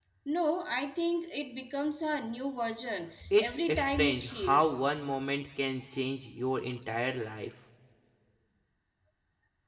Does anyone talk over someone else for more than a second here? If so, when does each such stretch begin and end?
3.4-4.8

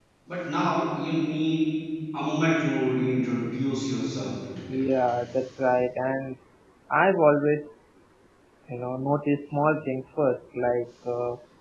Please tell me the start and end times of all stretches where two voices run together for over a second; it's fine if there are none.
none

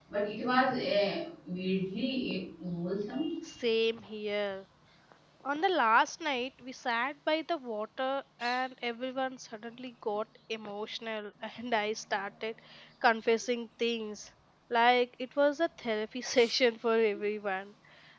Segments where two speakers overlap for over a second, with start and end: none

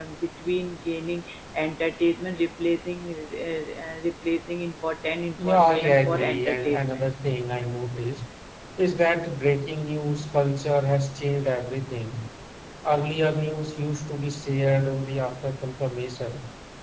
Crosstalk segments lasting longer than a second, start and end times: 5.4-7.1

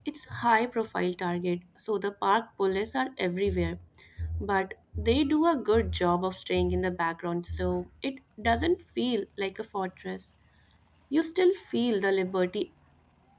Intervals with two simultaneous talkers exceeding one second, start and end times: none

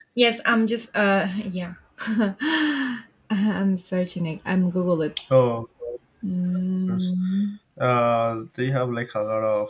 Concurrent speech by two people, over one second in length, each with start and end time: none

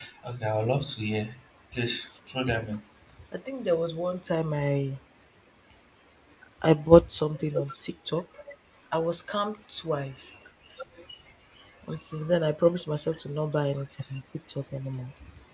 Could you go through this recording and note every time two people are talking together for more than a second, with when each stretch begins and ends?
none

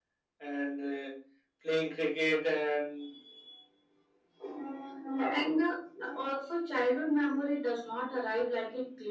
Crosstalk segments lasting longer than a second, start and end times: none

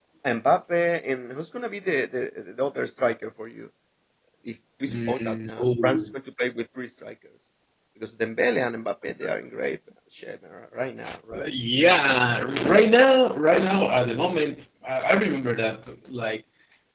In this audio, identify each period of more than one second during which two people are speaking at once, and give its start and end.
4.9-6.1

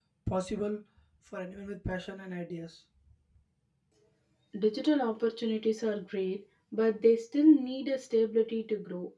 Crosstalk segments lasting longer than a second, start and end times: none

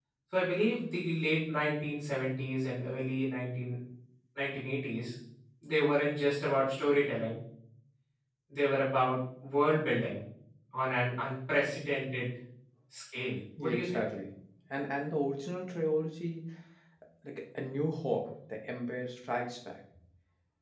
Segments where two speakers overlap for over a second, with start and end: none

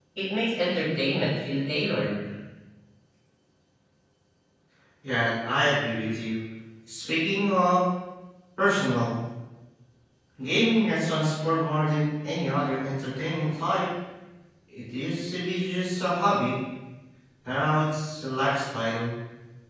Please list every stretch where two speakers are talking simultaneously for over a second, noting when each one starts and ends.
none

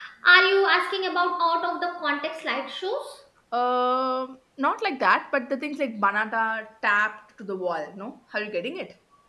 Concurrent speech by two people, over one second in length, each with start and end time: none

